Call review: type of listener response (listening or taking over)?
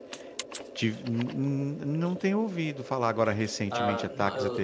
taking over